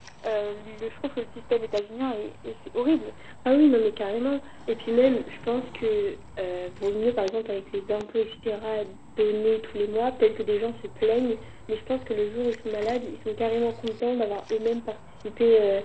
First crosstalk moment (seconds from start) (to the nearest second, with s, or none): none